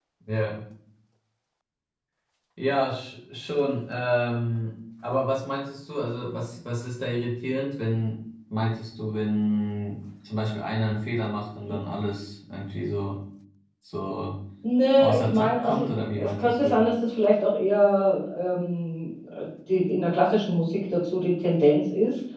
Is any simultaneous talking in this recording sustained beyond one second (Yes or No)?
Yes